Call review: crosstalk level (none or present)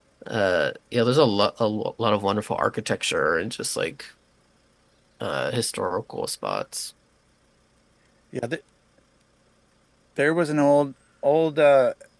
none